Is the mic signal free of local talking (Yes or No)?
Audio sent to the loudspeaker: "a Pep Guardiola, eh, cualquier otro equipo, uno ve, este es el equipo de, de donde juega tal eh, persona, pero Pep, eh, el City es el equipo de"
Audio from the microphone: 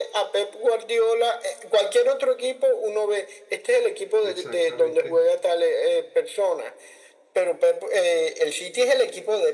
No